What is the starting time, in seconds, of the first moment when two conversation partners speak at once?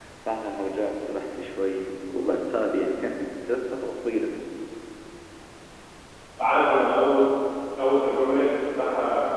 none

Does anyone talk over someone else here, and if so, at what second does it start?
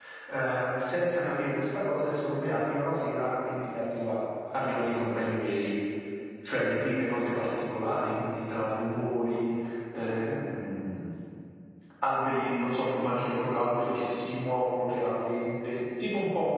none

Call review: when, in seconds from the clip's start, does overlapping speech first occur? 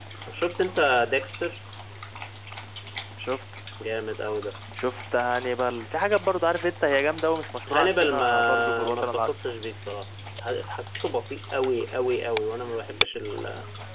7.7 s

